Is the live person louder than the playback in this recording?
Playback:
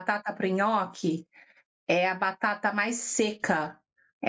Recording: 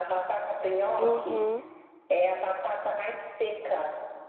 Yes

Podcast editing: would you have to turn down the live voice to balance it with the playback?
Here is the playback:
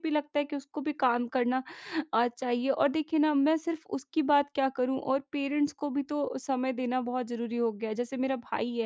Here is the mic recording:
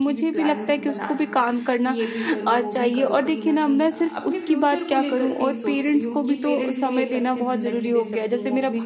No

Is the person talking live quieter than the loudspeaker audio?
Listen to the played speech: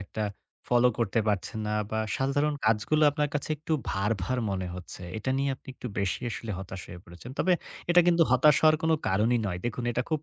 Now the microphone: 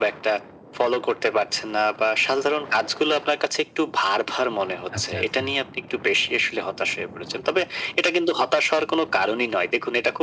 Yes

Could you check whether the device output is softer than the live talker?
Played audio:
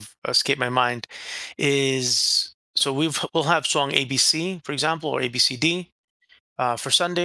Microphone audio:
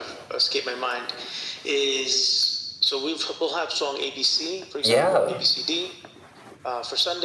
Yes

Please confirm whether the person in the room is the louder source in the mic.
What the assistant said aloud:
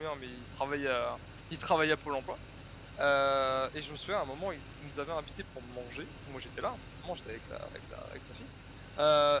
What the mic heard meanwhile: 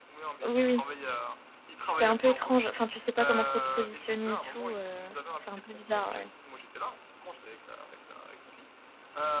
Yes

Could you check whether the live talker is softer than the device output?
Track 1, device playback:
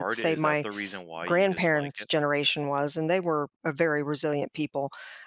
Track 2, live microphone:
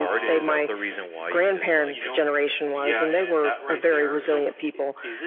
Yes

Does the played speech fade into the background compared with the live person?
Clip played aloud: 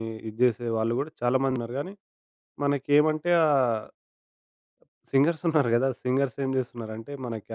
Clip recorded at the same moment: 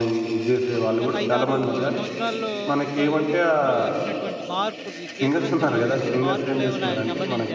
No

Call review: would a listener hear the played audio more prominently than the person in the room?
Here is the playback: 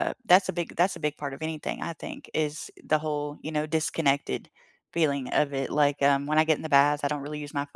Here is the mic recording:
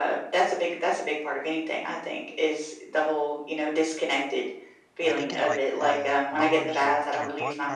Yes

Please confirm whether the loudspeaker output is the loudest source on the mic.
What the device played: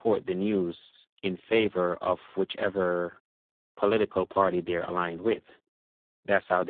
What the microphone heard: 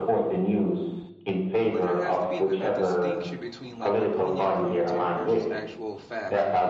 Yes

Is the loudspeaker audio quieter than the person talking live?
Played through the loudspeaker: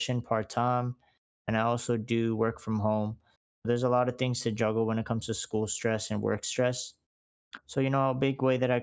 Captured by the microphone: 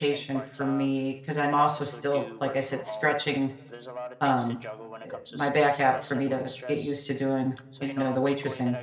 Yes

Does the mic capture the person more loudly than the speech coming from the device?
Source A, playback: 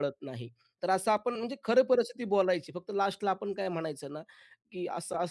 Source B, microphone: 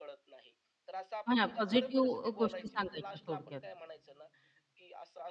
Yes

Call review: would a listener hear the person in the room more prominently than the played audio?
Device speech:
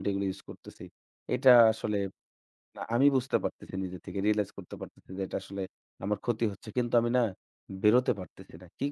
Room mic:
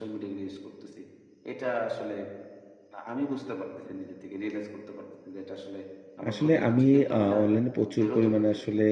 Yes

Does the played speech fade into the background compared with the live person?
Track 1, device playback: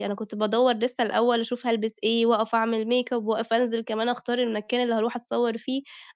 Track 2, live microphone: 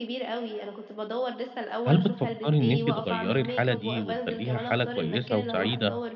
Yes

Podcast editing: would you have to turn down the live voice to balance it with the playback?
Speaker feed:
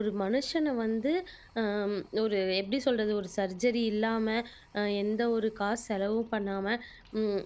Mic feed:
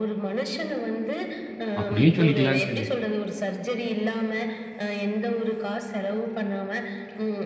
Yes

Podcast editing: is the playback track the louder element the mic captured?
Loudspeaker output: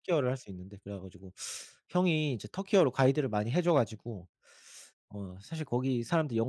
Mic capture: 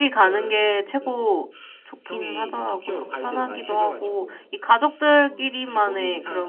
No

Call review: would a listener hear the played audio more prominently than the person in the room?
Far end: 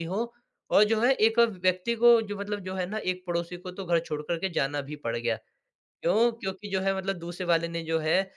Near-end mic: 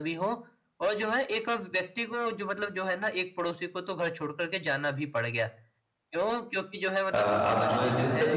No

